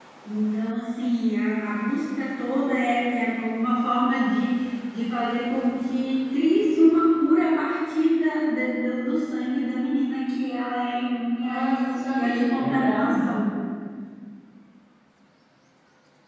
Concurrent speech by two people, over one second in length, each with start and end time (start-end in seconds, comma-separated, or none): 11.4-13.2